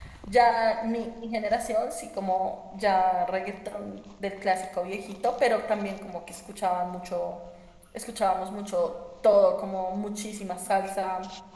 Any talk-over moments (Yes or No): No